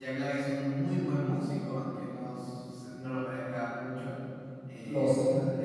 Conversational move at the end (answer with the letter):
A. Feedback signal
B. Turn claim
A